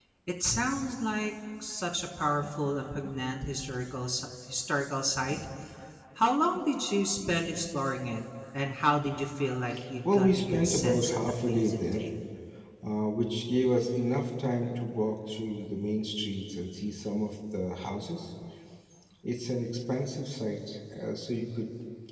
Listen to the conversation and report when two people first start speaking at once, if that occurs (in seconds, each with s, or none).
10.1 s